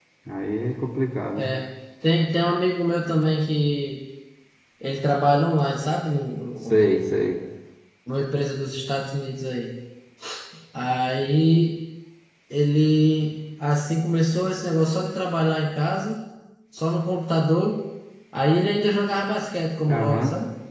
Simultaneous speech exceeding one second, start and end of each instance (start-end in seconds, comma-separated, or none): none